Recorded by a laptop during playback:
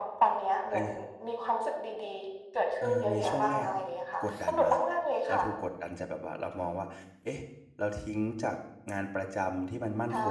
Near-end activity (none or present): present